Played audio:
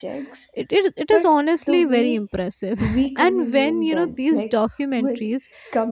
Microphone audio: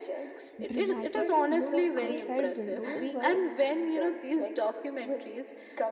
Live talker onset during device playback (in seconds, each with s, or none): 0.6 s